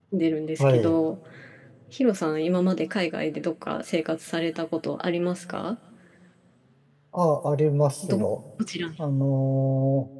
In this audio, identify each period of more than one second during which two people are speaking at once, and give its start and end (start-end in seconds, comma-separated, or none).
none